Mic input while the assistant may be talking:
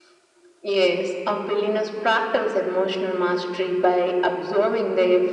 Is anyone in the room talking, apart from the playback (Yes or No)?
No